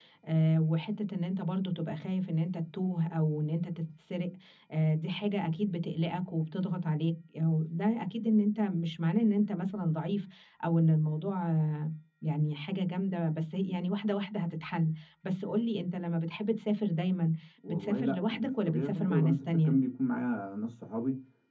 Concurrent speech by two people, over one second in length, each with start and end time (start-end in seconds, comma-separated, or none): 17.7-19.7